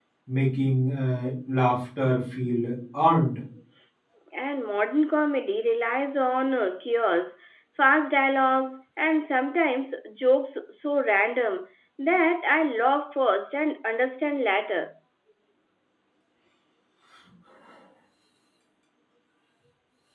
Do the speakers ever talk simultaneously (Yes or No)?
No